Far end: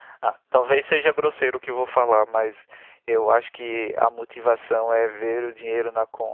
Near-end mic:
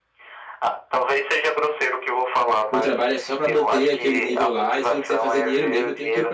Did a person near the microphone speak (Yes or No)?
Yes